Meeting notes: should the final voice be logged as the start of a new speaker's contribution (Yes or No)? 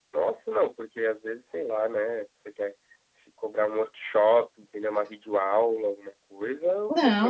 Yes